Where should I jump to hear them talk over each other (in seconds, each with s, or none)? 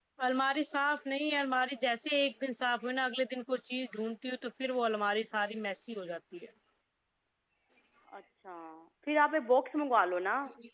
none